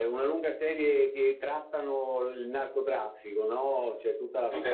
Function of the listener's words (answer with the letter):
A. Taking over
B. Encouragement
B